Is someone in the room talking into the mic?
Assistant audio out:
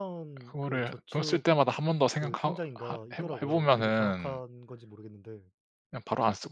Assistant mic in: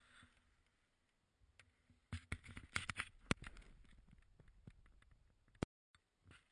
No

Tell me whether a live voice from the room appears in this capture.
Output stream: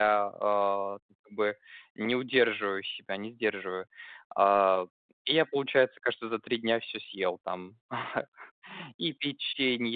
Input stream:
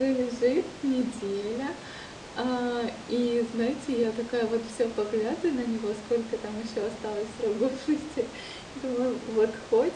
Yes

